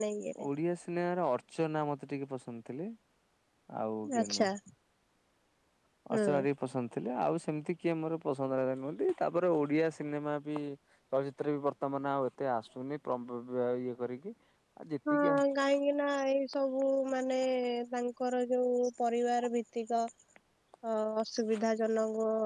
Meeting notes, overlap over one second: none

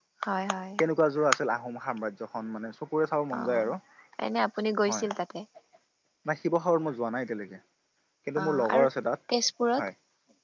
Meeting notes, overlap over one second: none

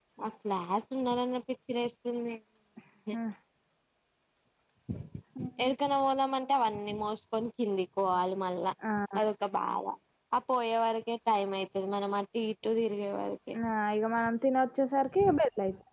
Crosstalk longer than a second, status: none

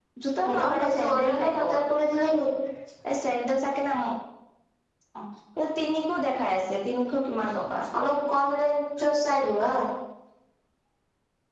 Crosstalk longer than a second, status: present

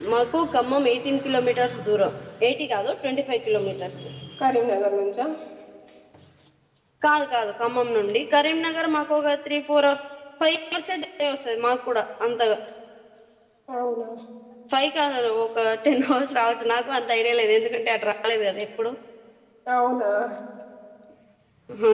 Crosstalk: none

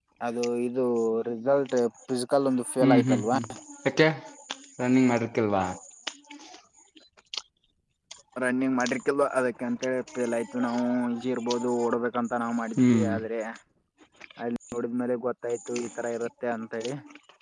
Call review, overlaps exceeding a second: none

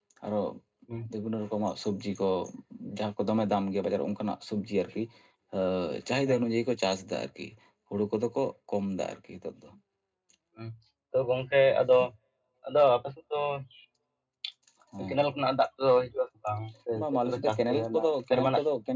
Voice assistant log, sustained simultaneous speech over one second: present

